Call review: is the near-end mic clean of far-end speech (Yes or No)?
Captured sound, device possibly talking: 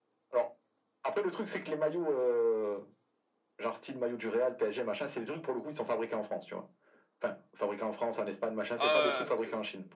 No